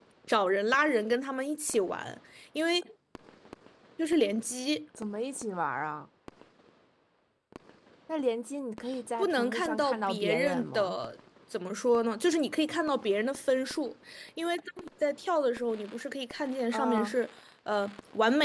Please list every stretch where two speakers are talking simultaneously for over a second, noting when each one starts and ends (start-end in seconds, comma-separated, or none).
9.2-11.0